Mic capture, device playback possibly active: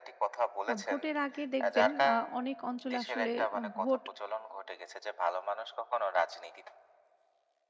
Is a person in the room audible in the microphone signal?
Yes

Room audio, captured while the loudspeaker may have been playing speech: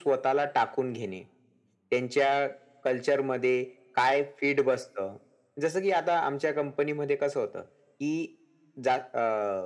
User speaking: No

